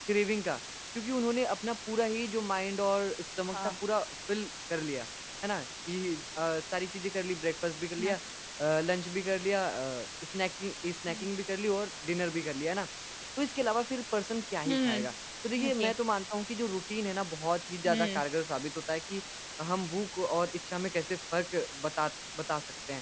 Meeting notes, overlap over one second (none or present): none